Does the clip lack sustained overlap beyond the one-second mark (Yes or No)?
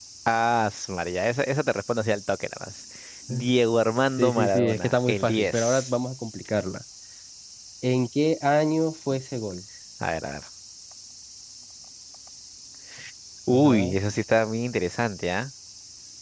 No